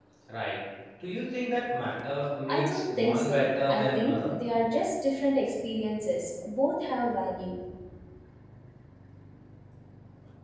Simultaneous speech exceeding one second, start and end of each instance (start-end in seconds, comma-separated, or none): 2.5-4.3